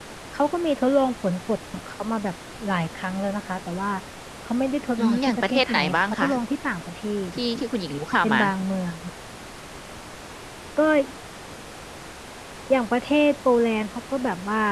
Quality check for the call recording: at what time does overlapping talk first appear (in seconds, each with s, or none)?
5.0 s